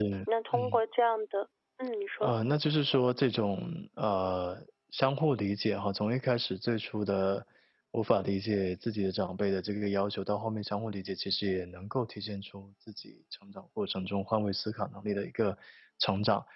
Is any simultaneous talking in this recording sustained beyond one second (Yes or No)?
No